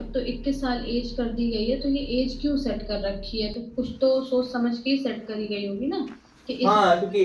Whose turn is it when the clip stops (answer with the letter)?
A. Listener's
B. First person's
A